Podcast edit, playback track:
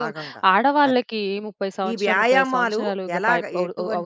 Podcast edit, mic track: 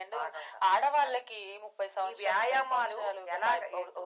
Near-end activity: none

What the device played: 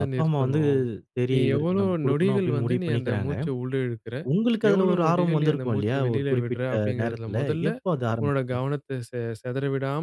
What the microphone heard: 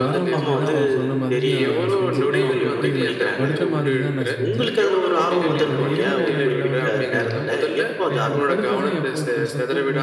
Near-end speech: present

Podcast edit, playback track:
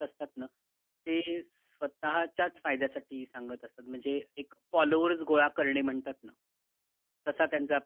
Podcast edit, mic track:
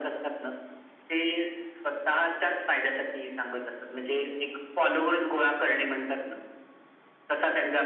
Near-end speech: none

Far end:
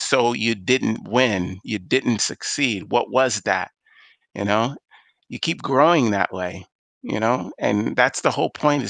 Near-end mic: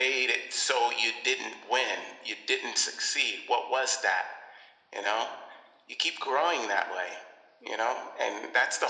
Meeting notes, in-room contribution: none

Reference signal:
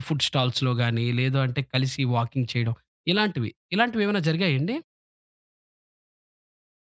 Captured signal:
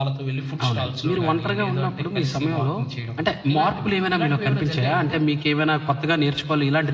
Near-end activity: present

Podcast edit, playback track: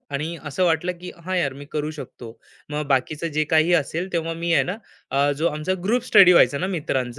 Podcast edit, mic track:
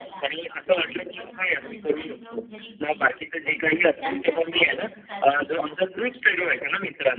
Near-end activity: present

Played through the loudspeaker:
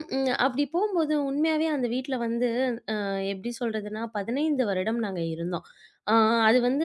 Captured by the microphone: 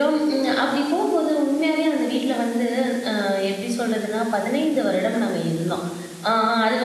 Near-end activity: none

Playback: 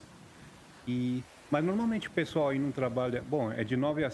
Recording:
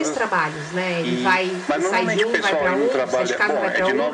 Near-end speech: present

